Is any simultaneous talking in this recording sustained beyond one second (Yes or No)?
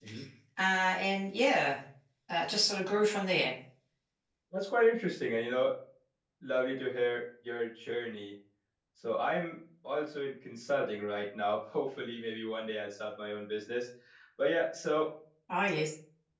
No